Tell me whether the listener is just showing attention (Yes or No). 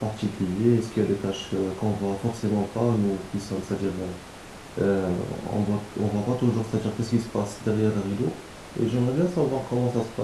Yes